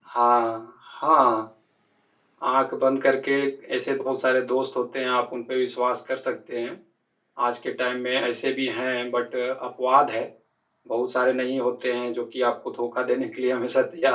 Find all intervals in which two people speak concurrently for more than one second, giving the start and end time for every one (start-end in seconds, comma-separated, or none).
none